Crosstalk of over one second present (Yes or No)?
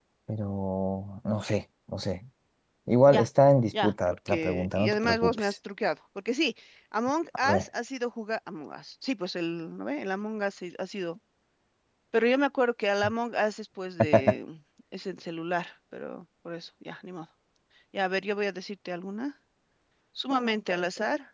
Yes